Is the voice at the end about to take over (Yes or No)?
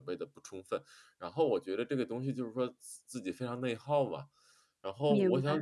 No